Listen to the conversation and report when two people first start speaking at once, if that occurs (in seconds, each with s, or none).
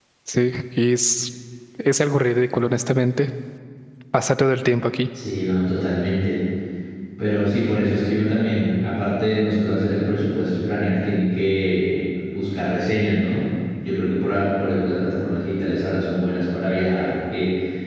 none